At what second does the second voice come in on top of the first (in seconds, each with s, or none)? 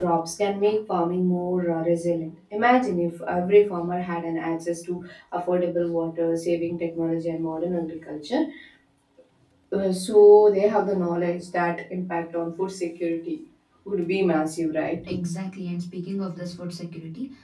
none